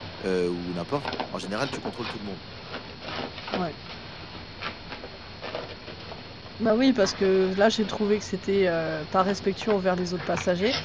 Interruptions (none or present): none